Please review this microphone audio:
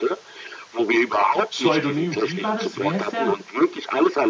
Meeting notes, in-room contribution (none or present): present